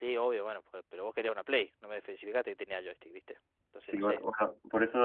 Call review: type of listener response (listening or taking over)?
taking over